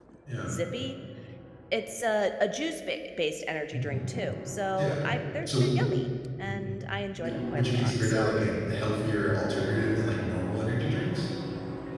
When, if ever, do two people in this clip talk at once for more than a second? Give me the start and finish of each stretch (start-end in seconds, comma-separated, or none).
7.2-8.4